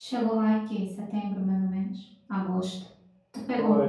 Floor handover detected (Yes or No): Yes